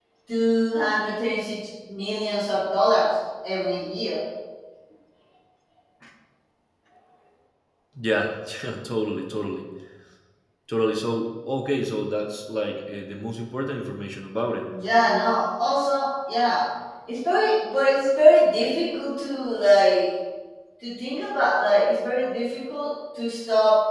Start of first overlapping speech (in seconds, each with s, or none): none